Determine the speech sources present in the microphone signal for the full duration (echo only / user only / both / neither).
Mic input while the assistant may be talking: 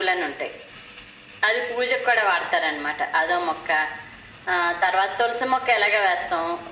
echo only